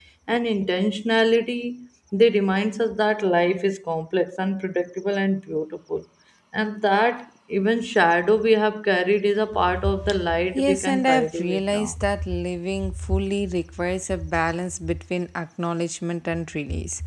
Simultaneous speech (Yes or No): Yes